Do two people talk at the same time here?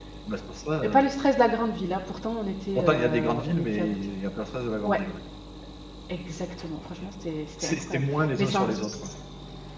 Yes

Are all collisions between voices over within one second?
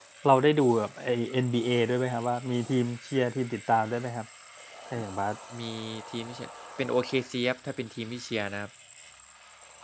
Yes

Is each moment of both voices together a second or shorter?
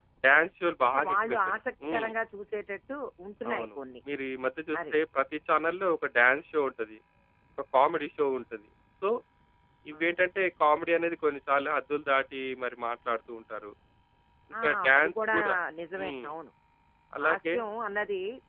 No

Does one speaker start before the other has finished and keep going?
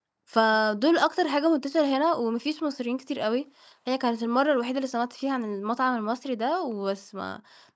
No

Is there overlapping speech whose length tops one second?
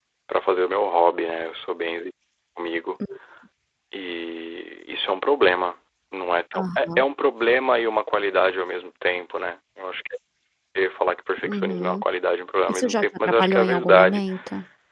Yes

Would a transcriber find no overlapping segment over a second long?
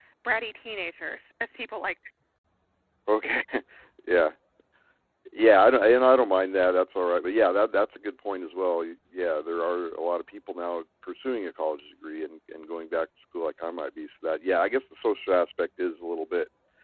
Yes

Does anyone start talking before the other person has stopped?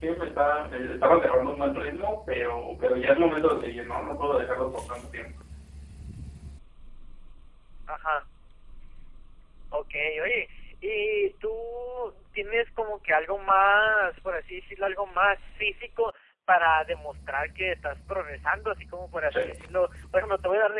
No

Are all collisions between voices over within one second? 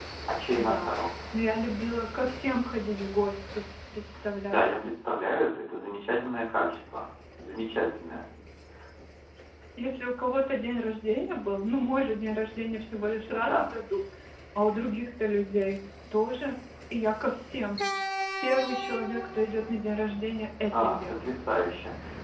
Yes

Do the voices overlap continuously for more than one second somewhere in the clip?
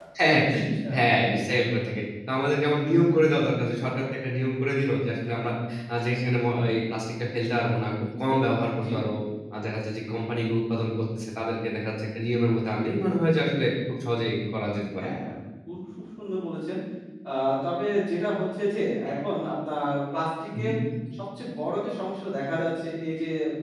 No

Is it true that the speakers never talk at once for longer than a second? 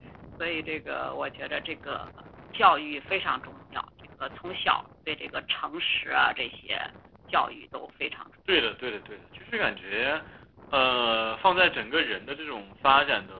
Yes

